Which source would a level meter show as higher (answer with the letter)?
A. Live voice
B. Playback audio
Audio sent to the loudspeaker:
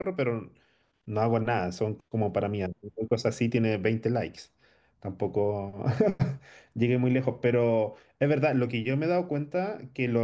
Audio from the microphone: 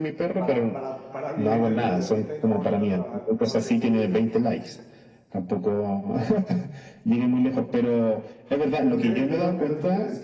B